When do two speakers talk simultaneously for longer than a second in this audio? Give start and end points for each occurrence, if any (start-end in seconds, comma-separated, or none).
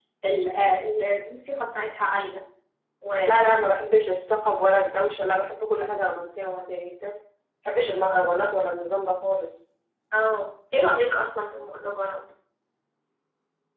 none